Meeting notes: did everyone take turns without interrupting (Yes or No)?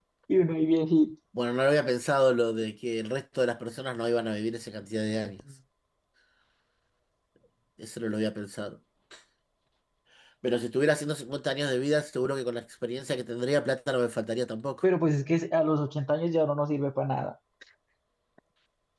Yes